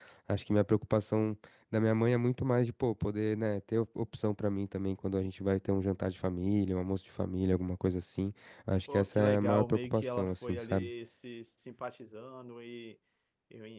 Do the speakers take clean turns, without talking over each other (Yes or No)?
No